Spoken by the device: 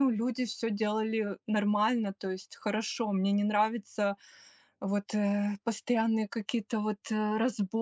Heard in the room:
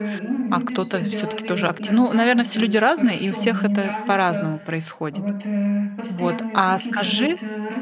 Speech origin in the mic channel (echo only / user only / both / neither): both